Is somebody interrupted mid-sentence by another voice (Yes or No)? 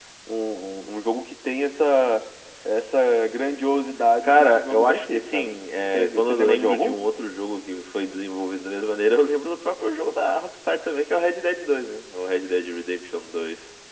Yes